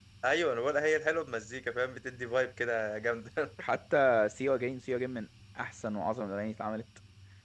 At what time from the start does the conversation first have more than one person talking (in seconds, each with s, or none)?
none